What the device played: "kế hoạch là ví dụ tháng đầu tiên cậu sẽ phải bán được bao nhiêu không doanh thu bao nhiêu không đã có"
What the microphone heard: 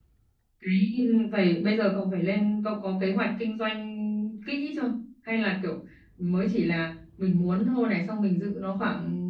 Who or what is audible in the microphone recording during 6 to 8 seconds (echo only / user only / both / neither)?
user only